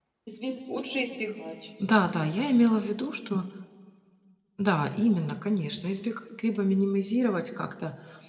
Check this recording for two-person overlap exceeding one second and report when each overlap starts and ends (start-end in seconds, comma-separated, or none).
none